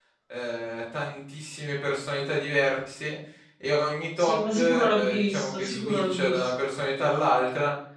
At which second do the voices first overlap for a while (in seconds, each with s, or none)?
4.2 s